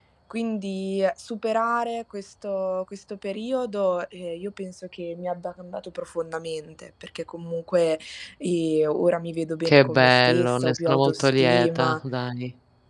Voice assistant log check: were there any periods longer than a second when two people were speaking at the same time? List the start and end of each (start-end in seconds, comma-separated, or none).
9.6-12.0